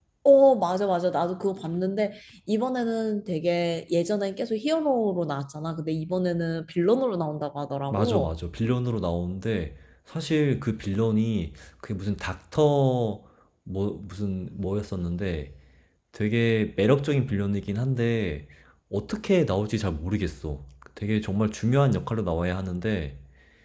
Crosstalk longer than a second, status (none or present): none